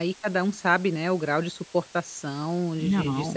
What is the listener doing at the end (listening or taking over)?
listening